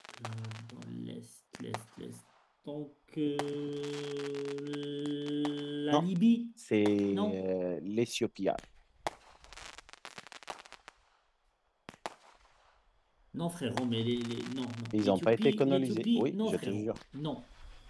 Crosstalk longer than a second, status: present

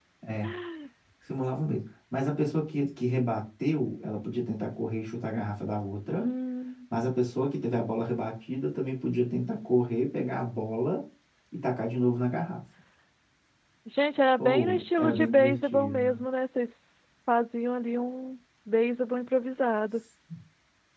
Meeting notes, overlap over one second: present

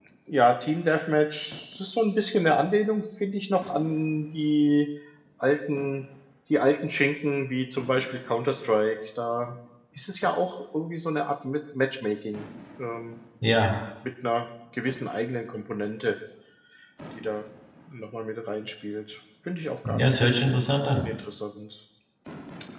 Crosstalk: present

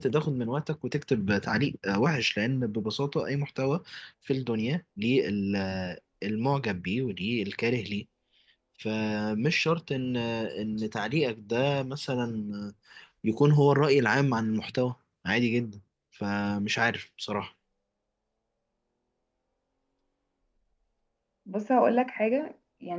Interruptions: none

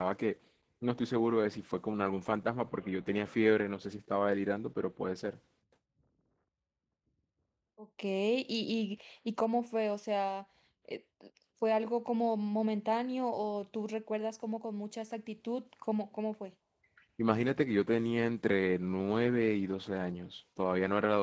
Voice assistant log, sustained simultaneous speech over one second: none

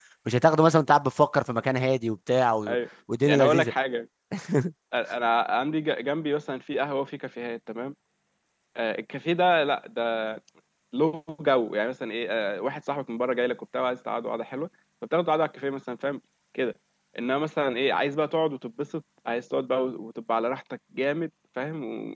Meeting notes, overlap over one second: none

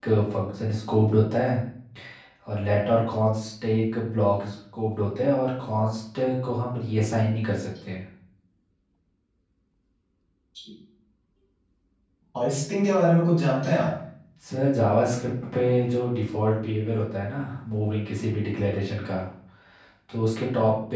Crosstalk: none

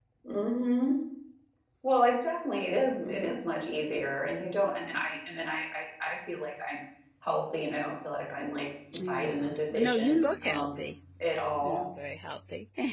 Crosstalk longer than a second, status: present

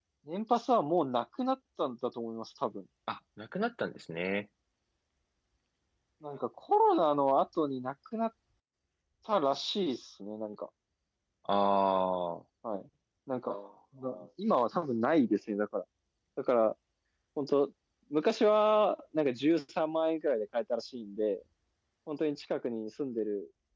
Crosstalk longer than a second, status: none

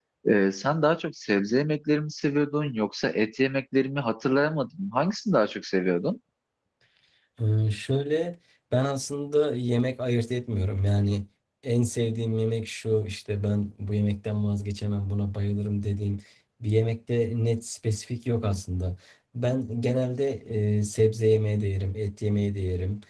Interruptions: none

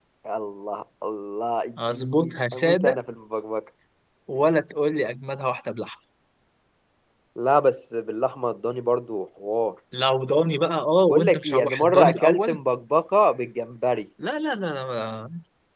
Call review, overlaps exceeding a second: present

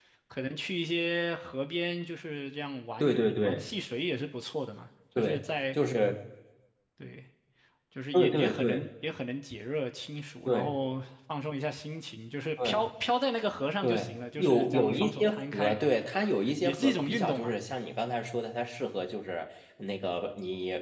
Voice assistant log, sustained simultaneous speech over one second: present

